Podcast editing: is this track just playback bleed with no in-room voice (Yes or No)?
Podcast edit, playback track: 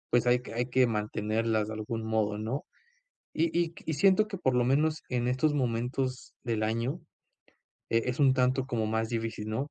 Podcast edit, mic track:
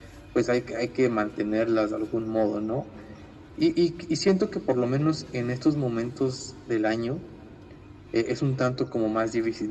Yes